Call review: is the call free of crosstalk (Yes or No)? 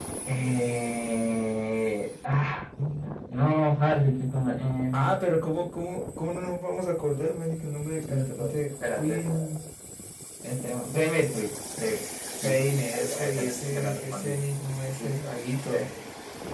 No